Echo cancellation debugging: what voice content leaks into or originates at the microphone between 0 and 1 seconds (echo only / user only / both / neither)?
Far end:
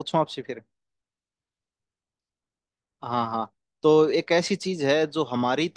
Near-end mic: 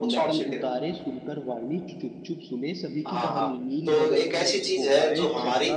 both